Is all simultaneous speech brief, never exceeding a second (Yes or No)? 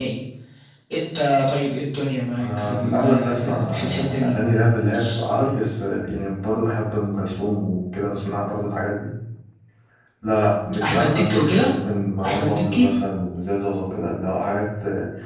No